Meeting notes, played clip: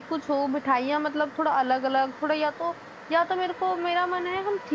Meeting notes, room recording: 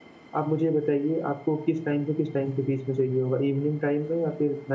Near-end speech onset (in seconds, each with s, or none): 0.4 s